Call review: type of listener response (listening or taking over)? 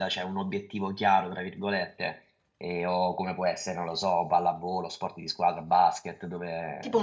taking over